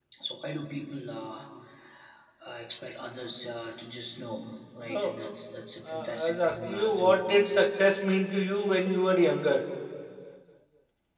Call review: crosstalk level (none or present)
present